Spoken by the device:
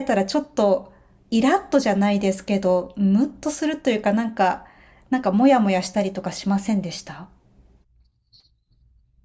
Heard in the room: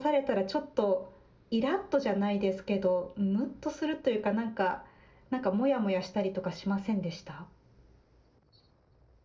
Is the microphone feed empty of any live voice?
Yes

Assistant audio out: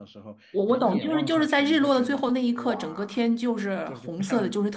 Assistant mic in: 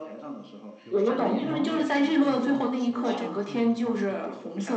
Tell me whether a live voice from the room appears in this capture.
Yes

